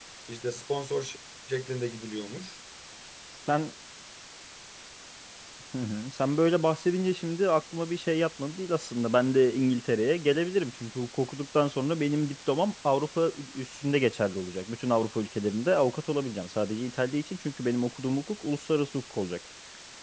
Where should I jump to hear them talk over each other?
none

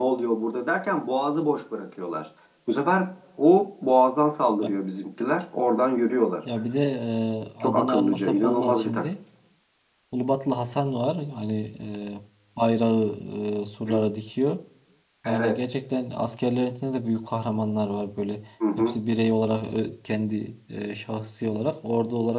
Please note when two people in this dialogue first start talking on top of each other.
8 s

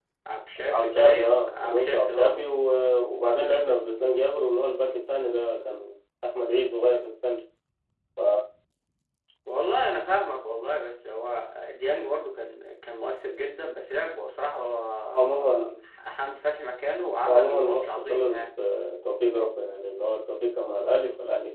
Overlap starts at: 1 s

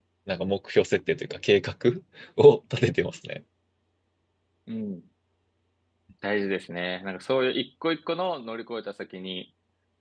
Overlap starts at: none

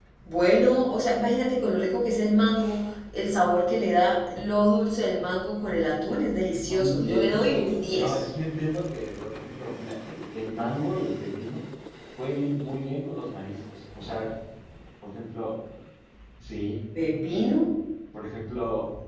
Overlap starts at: 7 s

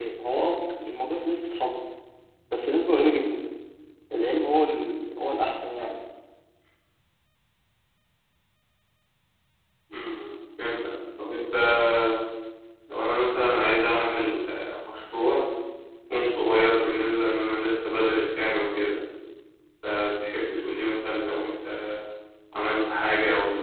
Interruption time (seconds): none

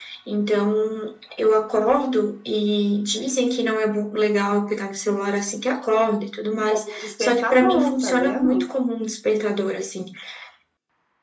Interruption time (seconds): 7 s

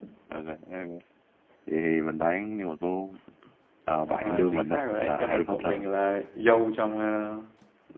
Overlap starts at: 4 s

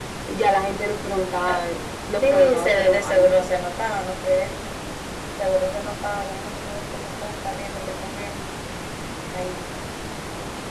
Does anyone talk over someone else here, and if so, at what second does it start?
2 s

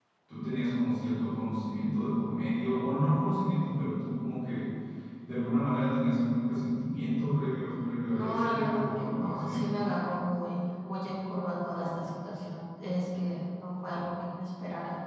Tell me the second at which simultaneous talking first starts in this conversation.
8 s

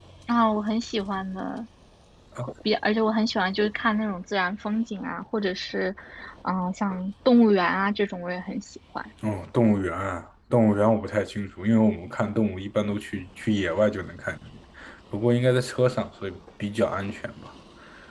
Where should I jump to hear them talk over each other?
none

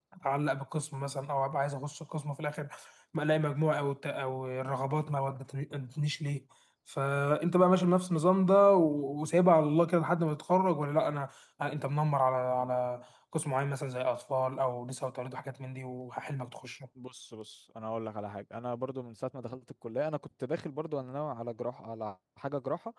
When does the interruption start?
none

